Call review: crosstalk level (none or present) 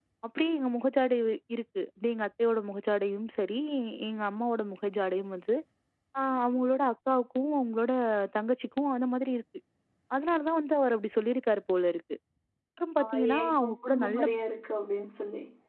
present